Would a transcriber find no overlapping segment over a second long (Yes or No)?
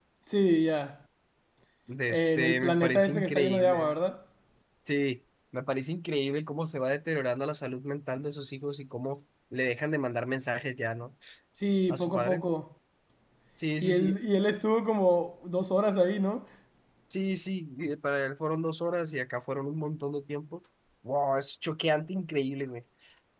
No